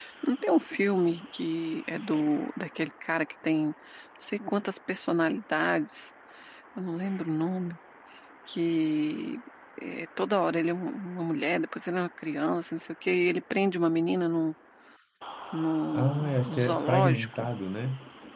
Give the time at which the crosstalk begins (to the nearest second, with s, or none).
16 s